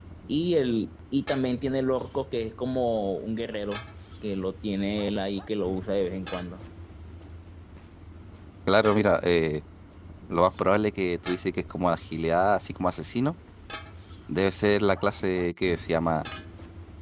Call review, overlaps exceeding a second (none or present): none